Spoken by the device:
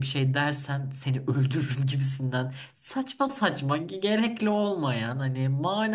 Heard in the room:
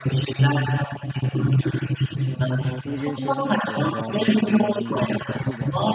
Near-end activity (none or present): present